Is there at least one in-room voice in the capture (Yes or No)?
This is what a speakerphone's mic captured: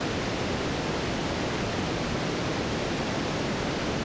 No